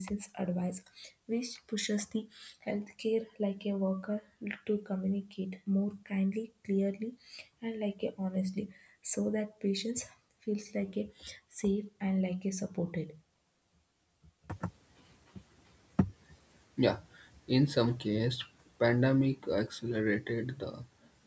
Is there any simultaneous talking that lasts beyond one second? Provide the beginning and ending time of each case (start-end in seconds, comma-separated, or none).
none